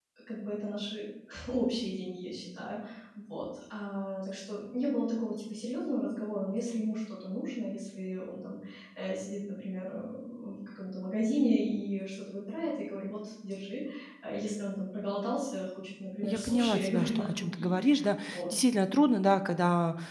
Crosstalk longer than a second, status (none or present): present